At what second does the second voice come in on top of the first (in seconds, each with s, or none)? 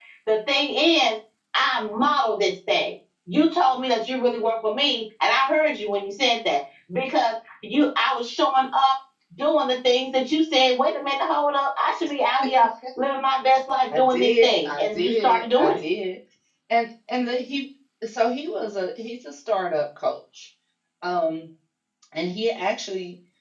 13.9 s